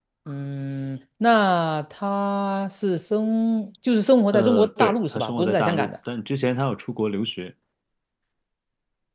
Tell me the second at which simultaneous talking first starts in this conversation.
4 s

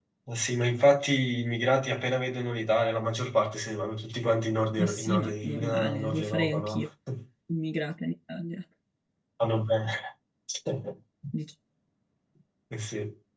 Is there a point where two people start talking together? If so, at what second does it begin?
5 s

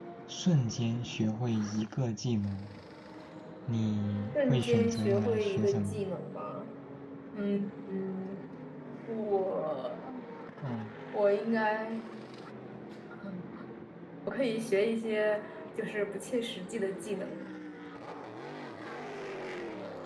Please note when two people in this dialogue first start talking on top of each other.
4 s

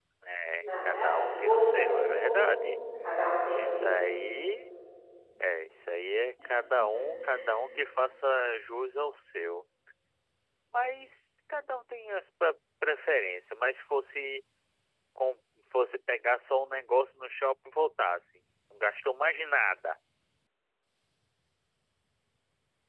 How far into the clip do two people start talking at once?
1 s

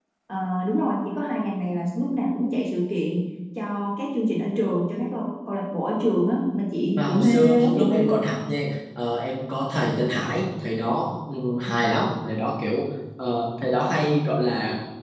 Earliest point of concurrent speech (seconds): 7 s

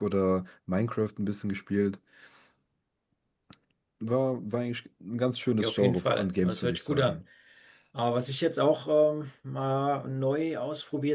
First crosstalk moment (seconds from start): 6 s

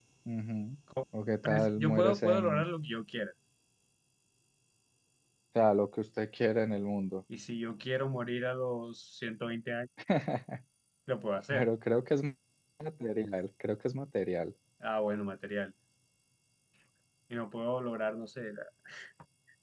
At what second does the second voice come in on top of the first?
1 s

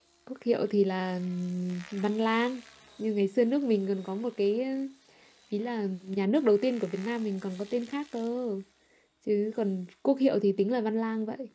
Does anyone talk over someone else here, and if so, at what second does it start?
none

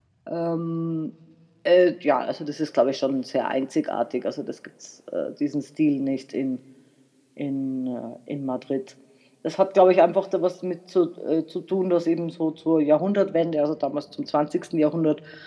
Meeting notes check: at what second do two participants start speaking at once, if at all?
none

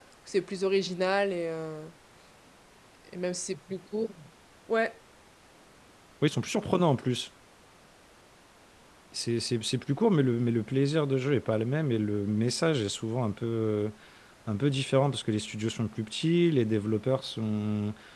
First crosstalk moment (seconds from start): none

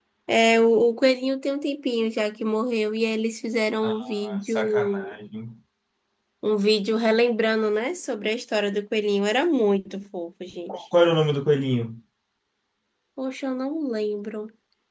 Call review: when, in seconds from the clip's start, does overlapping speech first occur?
4 s

